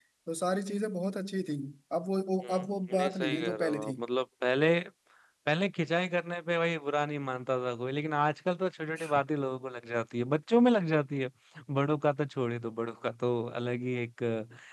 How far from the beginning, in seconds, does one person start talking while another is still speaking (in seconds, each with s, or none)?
2.4 s